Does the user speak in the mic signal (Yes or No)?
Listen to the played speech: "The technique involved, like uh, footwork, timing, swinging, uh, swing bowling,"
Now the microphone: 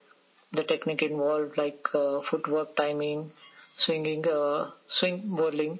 No